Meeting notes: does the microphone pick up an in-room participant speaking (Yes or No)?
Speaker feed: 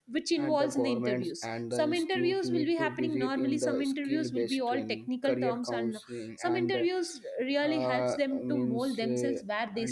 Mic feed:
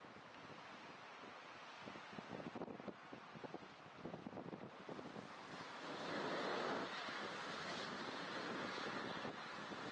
No